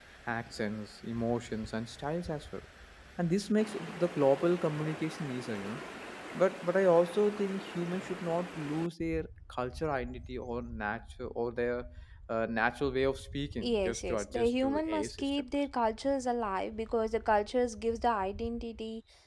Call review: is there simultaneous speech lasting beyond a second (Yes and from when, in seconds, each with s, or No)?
Yes, from 13.6 s